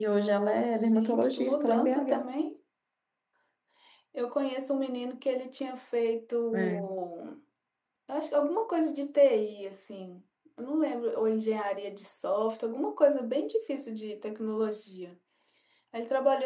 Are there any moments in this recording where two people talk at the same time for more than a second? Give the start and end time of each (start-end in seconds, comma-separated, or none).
0.8-2.3